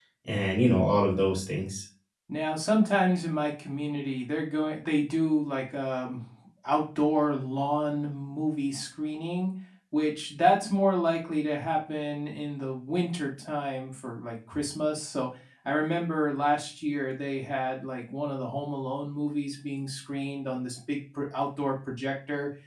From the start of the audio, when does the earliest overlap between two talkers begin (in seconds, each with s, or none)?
none